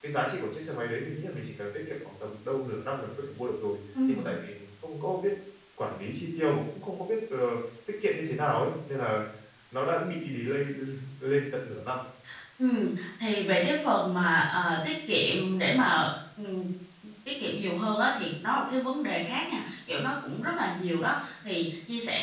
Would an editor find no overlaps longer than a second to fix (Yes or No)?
Yes